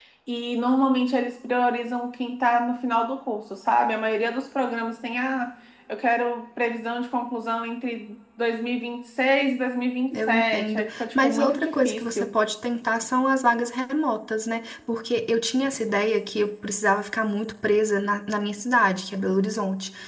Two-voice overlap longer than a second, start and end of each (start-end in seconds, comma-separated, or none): 10.1-12.3